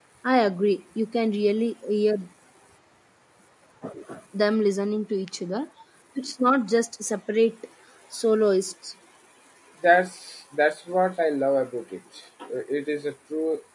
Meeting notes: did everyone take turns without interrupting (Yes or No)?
Yes